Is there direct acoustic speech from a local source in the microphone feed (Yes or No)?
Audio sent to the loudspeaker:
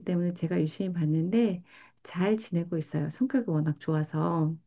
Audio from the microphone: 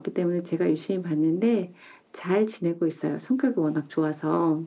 No